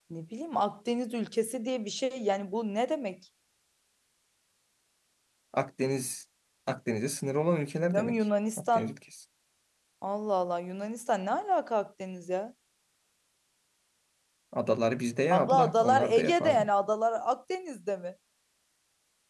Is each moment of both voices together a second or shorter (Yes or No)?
No